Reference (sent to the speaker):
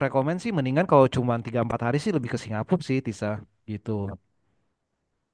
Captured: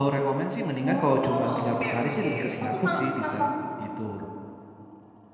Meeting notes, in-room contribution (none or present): present